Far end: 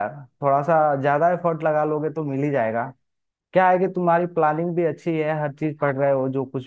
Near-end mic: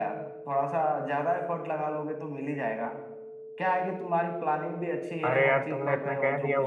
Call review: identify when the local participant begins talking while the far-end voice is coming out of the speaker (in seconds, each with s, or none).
5.3 s